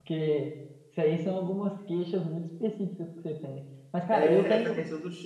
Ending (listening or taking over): taking over